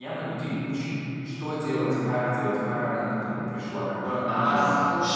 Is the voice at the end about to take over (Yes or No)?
Yes